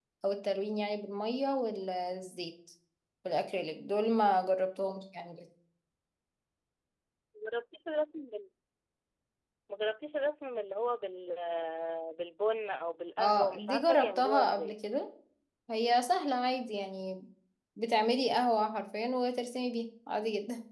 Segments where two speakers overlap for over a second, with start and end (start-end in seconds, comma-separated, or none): 13.2-14.8